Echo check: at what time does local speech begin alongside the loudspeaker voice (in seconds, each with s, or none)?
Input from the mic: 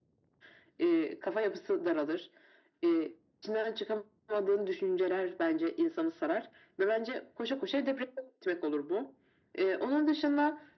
none